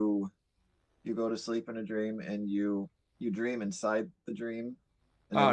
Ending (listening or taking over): taking over